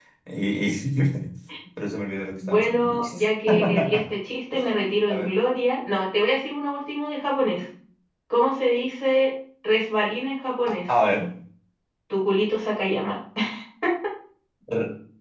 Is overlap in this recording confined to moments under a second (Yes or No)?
No